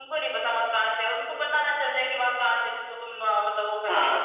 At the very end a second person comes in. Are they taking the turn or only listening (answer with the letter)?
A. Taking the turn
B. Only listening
A